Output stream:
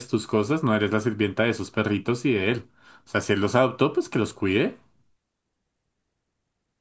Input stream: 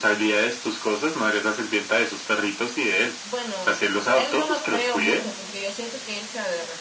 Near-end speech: present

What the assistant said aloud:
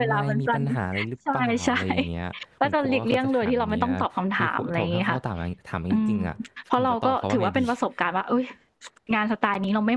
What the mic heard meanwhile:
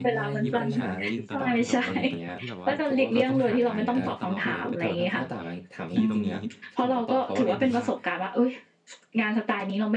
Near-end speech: present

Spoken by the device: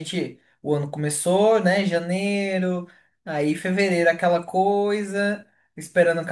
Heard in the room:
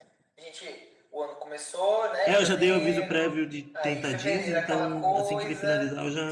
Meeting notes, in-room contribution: present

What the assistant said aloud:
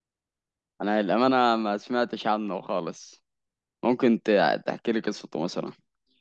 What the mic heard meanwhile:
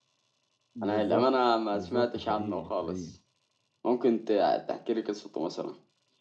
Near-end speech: present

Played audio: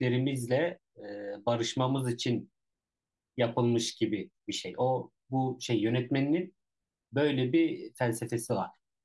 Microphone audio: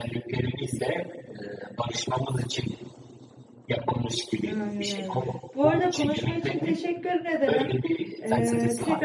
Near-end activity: present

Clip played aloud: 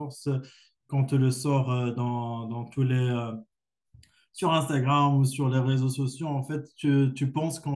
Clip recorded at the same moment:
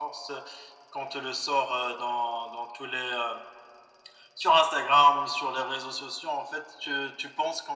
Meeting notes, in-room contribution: none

